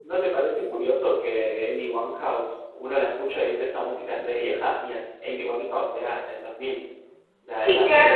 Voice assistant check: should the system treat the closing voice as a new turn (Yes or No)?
Yes